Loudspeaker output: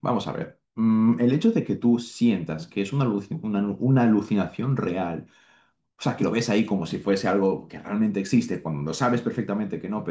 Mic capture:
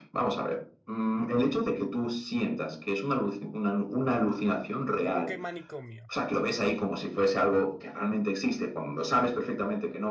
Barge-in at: 5 s

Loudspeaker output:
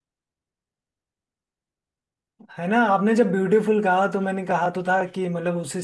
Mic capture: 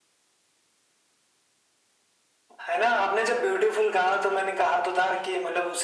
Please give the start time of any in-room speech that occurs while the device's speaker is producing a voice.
none

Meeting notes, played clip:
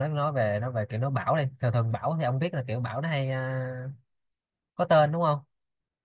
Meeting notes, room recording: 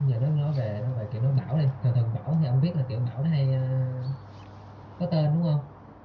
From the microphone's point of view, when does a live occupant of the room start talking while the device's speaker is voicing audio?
none

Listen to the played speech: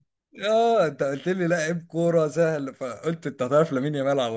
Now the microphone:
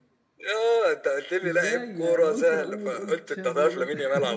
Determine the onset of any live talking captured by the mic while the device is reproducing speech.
1 s

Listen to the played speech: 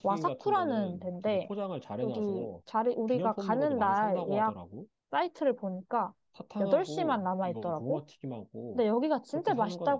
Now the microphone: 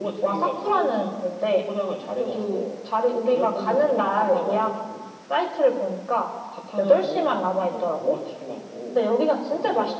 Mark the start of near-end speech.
none

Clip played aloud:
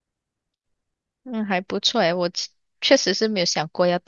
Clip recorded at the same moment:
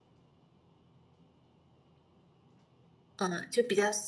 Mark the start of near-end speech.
3 s

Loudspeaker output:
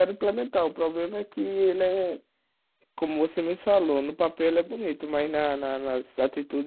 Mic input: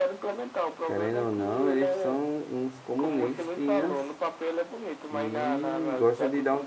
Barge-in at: 1 s

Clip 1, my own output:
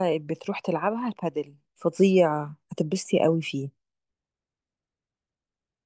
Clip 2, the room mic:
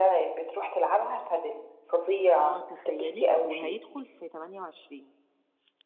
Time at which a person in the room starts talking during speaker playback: 2 s

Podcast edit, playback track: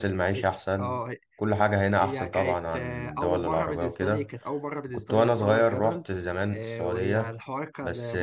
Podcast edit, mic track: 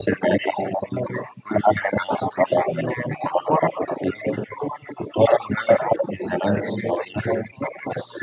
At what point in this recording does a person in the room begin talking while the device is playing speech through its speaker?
none

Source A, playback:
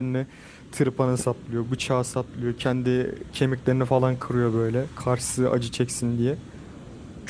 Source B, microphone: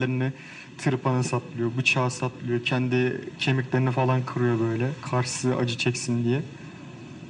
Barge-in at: none

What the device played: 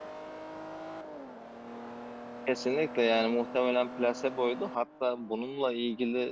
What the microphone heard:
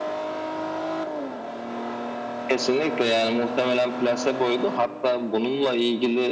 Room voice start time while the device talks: none

